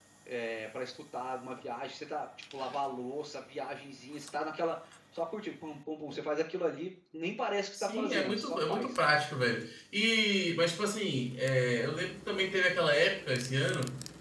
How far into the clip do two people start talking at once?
7.8 s

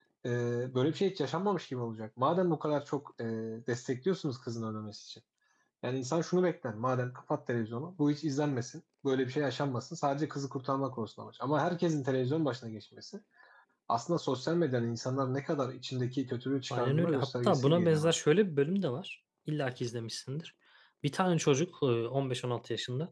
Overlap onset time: 16.7 s

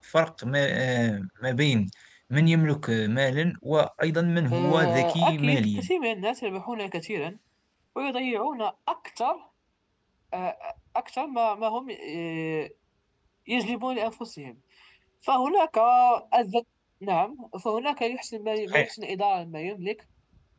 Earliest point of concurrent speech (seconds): 4.5 s

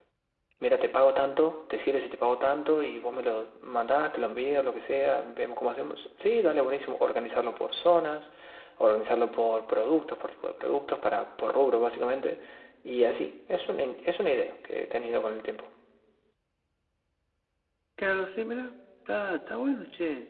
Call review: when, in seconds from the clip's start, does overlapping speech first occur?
none

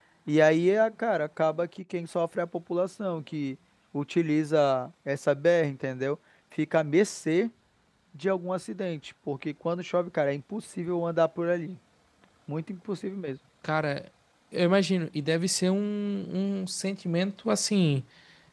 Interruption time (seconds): none

